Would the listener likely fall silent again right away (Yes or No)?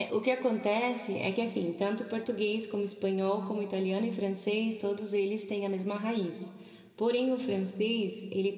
Yes